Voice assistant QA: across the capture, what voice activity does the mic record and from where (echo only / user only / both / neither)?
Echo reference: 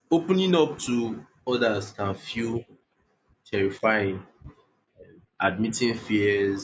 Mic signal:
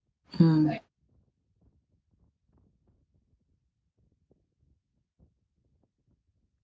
user only